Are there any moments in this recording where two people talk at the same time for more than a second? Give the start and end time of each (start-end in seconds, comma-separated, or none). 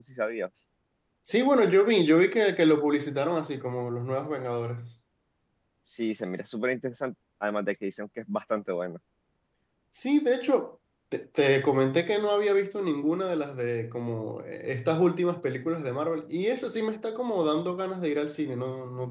none